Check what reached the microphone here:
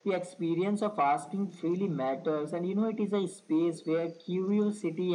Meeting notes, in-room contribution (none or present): none